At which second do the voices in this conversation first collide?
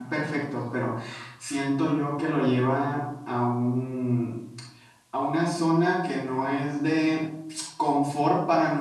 none

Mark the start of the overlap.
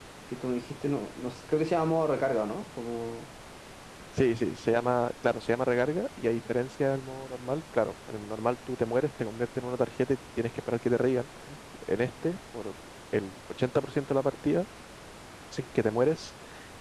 none

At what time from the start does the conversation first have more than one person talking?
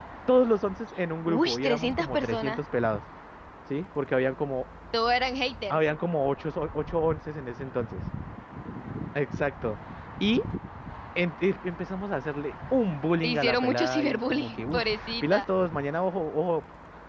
1.3 s

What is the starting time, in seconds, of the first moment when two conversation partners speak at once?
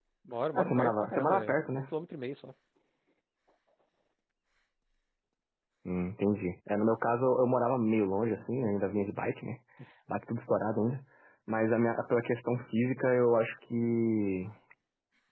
0.6 s

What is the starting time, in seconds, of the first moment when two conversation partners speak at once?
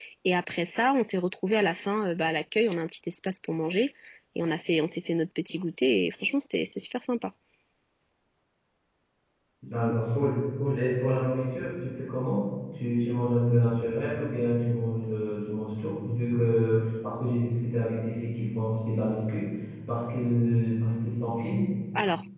none

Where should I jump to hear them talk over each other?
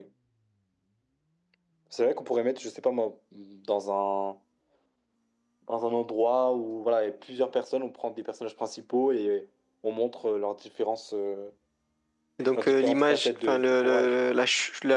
12.6 s

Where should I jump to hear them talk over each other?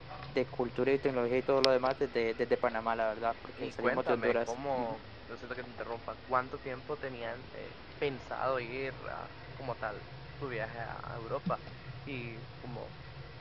3.6 s

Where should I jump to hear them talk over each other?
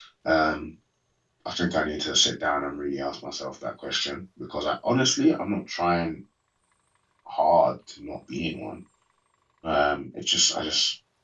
none

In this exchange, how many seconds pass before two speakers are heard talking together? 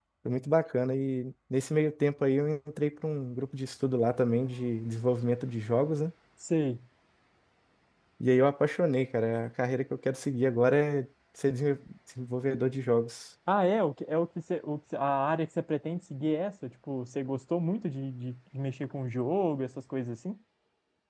none

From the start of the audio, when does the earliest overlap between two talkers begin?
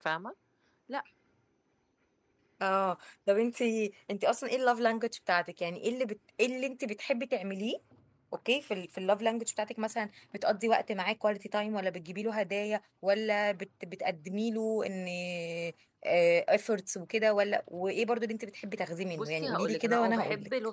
19.1 s

